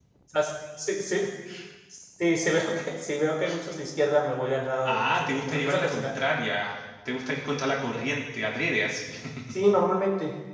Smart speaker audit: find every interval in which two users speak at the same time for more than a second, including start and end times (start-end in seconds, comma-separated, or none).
4.8-6.2